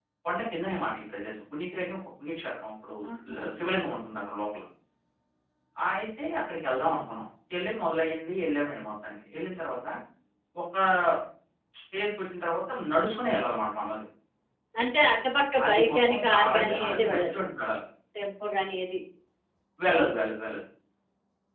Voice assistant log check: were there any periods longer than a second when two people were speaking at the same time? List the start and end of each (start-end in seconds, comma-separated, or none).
15.6-17.4